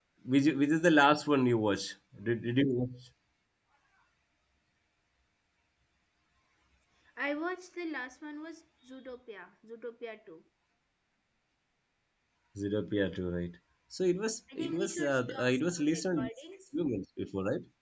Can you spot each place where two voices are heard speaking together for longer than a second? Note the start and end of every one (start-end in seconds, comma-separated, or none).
14.6-16.3